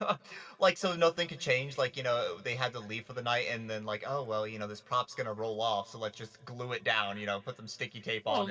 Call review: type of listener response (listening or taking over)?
taking over